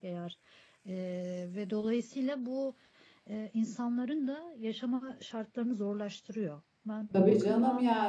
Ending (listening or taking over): taking over